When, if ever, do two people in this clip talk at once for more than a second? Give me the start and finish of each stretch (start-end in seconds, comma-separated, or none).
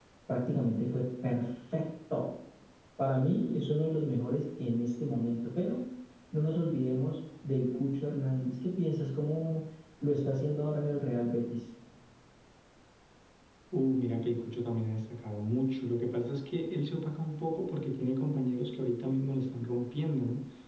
none